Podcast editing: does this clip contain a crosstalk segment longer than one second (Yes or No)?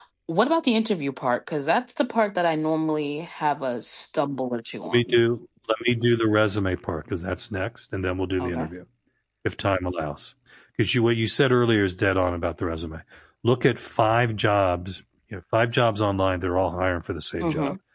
No